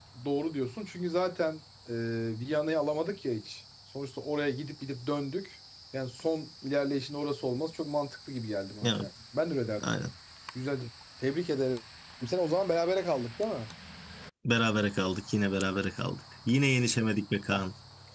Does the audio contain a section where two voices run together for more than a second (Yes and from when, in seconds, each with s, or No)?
No